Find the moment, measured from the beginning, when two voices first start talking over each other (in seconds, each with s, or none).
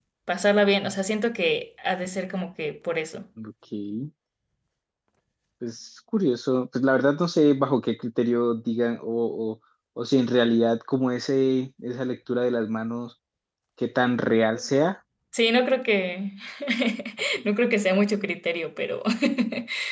none